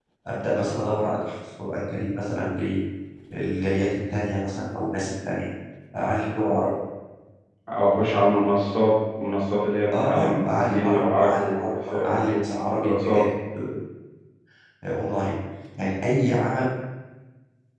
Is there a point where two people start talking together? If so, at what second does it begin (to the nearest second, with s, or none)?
10 s